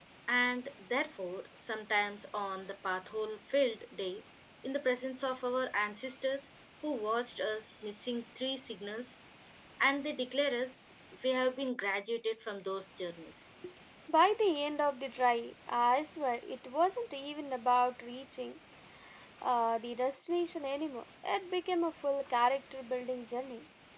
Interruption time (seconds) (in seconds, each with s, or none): none